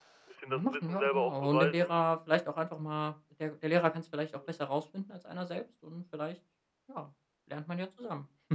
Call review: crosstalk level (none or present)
present